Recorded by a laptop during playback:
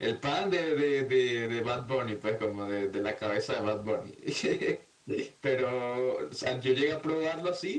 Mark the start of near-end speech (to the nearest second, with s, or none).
none